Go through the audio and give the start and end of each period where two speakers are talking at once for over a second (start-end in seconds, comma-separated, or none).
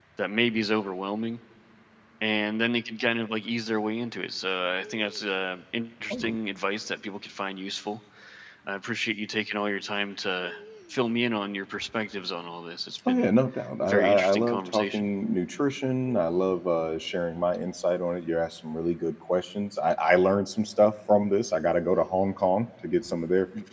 13.8-15.0